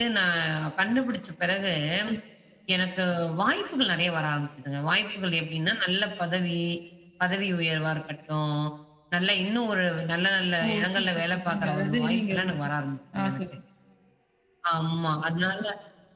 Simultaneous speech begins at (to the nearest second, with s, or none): 11 s